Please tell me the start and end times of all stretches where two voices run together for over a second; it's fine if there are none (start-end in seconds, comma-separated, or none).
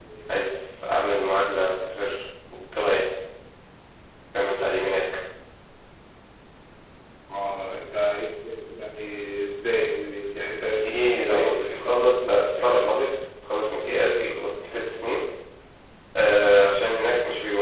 11.2-13.1